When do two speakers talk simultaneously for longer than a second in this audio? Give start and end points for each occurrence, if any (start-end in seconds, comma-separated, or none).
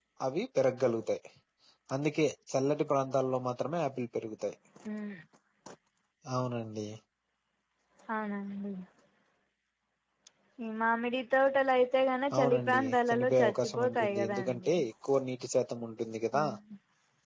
12.3-14.7